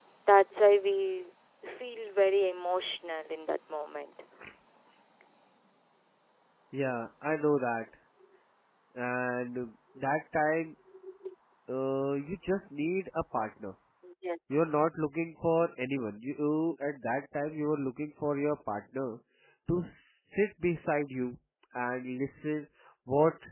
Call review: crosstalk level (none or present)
none